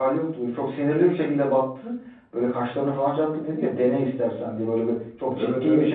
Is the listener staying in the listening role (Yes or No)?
Yes